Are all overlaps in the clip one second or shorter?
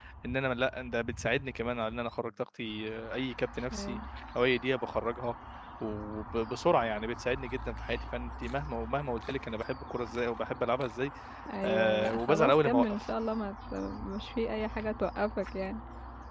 No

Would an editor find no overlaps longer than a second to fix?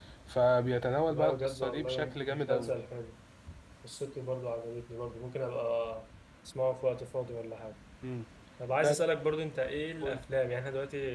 No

